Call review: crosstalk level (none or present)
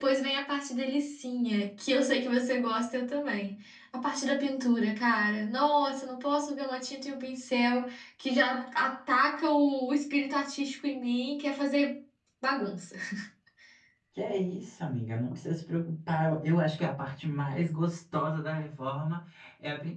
none